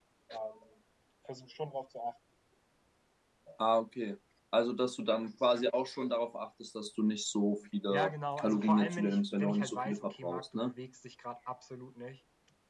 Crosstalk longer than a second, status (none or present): present